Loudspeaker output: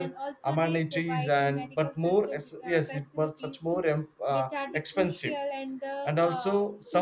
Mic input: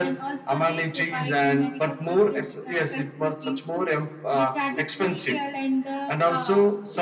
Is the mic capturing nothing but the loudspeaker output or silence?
Yes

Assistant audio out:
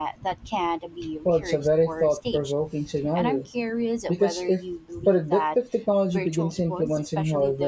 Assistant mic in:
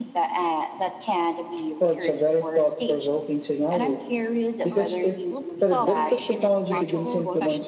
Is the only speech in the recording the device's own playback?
No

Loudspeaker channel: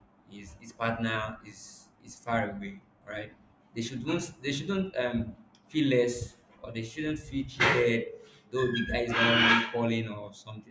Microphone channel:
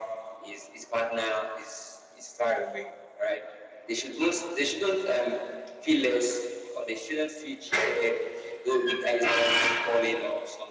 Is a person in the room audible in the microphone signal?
No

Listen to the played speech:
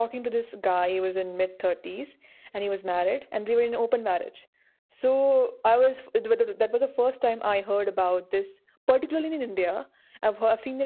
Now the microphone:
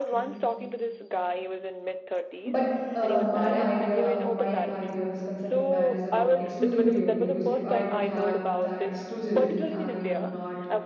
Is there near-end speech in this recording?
Yes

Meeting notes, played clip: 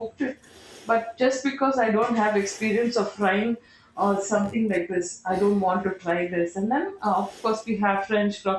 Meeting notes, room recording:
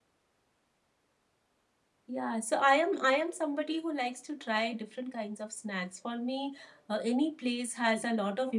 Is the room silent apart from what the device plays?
No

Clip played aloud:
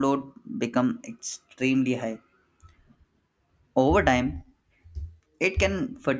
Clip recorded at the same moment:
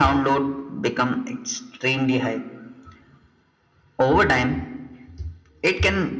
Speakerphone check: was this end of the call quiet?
Yes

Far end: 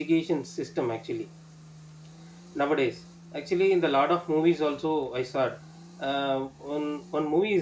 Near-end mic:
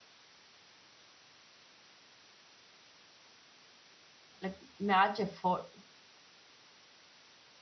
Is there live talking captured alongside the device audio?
Yes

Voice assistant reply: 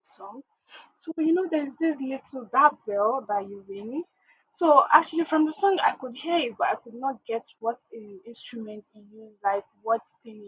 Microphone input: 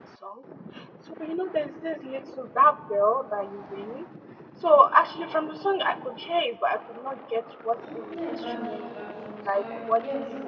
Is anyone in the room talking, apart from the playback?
Yes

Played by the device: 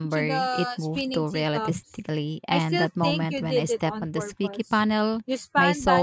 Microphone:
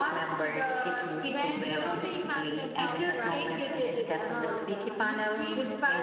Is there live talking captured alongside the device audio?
Yes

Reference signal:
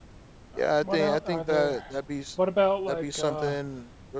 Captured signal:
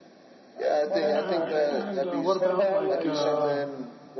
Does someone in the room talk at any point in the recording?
Yes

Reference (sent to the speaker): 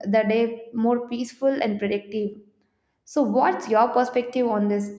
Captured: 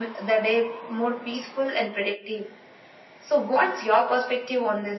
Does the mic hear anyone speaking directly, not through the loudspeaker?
No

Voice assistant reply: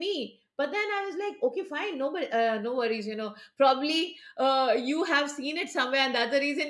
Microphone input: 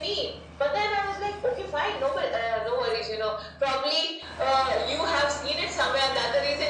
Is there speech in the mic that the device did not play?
No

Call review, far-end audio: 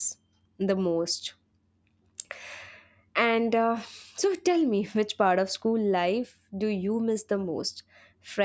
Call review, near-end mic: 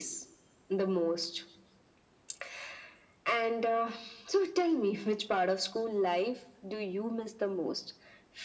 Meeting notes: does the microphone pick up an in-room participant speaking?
No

